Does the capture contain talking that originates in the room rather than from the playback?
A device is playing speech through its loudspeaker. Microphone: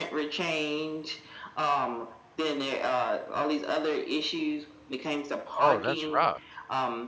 Yes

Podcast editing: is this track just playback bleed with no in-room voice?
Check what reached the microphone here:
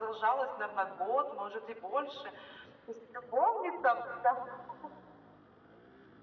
Yes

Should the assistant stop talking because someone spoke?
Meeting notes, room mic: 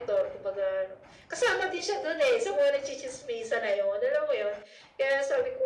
No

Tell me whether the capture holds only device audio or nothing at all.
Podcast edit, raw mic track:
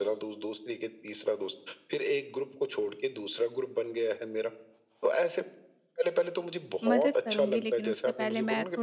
No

